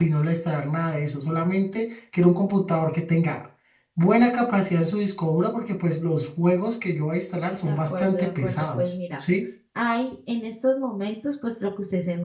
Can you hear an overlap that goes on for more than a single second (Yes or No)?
Yes